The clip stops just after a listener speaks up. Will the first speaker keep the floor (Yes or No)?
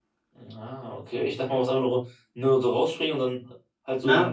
No